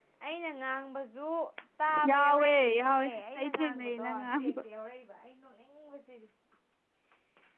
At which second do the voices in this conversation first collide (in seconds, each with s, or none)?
2.1 s